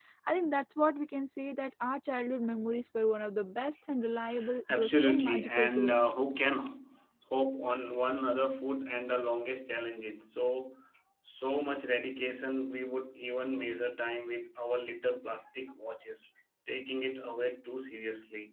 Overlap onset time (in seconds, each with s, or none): 4.7 s